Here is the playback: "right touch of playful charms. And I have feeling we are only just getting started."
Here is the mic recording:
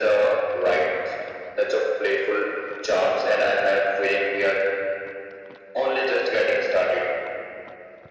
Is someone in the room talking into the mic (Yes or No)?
No